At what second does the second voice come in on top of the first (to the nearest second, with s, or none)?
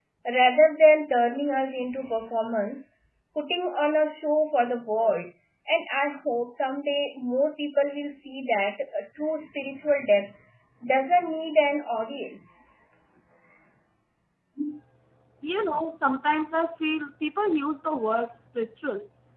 none